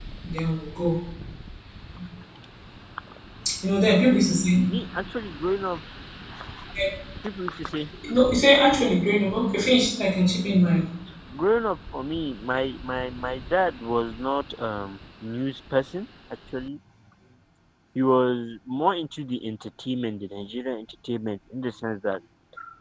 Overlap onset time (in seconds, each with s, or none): none